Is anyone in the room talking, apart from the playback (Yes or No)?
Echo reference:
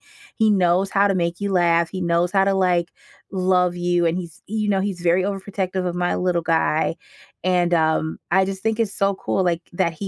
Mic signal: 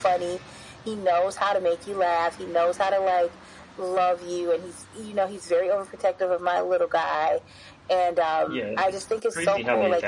Yes